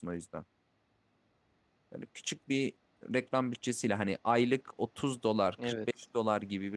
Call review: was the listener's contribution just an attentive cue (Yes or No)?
Yes